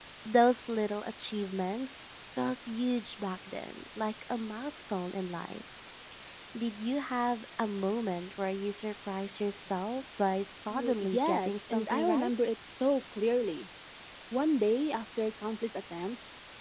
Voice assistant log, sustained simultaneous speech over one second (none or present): present